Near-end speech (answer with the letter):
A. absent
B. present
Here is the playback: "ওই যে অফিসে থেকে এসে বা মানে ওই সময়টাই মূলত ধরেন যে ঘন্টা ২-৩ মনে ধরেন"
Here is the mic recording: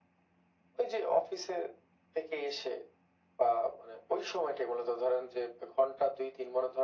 A